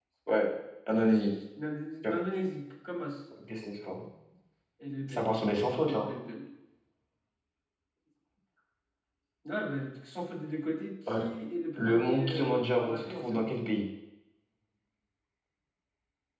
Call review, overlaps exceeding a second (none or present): present